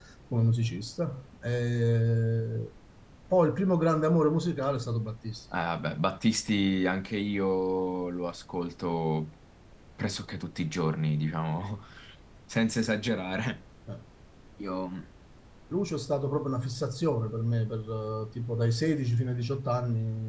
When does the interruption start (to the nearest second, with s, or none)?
none